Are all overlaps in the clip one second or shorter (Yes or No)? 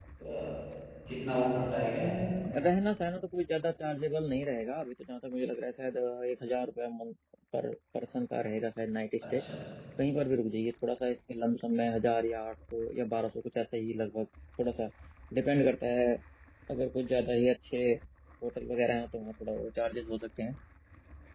Yes